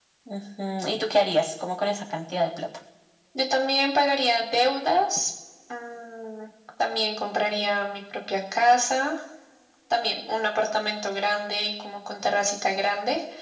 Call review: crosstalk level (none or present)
none